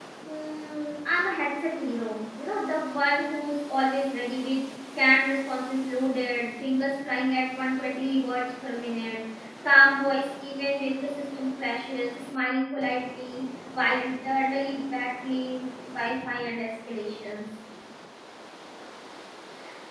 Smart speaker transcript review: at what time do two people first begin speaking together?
none

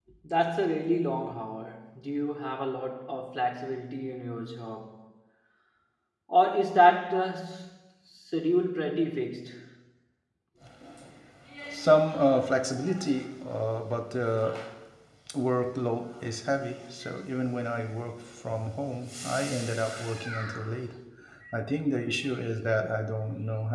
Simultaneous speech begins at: none

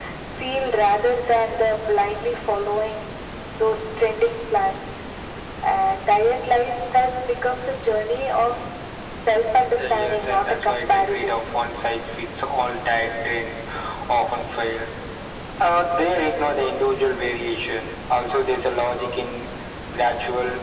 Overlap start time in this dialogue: 9.9 s

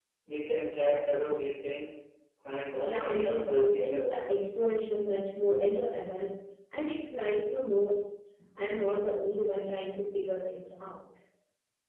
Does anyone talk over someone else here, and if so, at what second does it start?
2.7 s

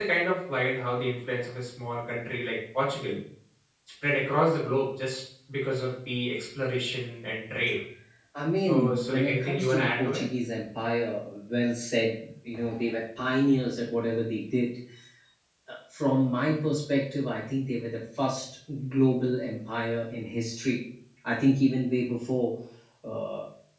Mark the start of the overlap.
8.7 s

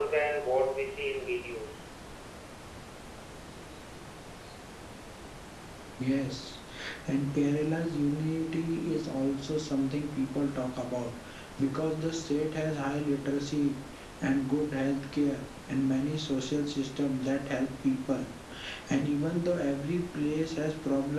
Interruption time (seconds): none

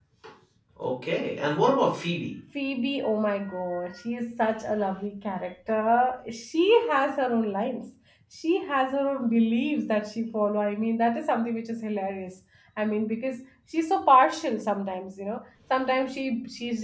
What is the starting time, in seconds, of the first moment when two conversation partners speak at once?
none

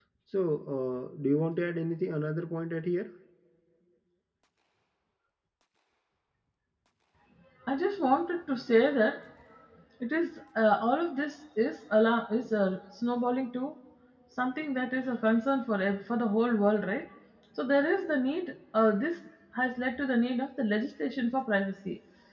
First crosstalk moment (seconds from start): none

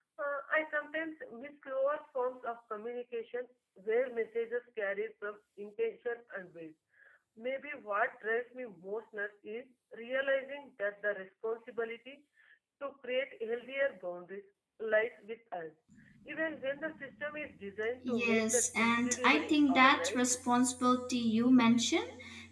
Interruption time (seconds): 18.0 s

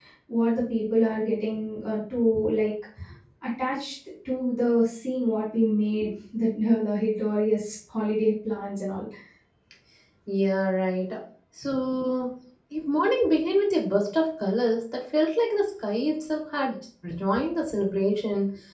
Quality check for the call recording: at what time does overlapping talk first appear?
none

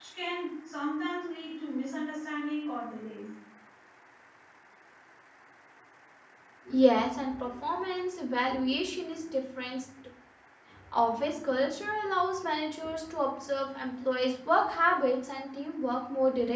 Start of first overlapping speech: none

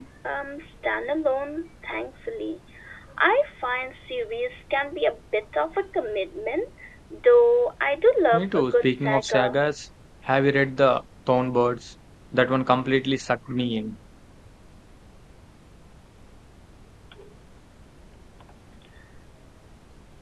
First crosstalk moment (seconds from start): 8.3 s

